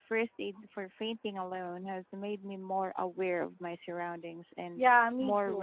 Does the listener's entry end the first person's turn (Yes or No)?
Yes